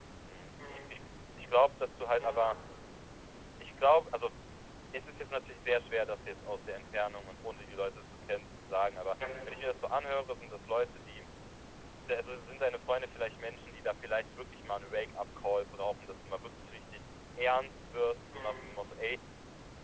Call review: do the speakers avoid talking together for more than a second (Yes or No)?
Yes